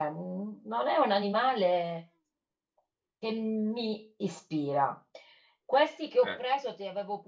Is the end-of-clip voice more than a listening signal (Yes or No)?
No